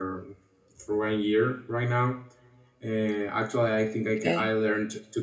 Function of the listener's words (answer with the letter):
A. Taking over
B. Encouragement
B